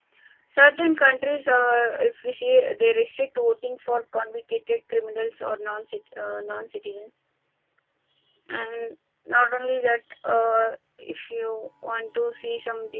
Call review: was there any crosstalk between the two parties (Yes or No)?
No